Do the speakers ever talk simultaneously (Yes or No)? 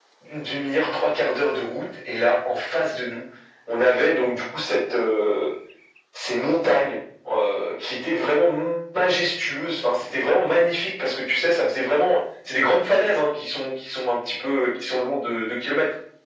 No